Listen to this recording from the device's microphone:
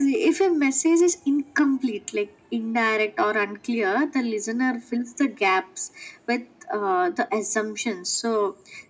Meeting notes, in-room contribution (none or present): none